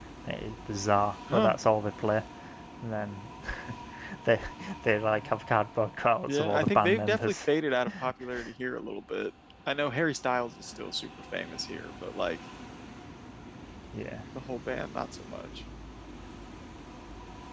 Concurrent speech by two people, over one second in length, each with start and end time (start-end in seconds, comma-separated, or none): 6.3-7.5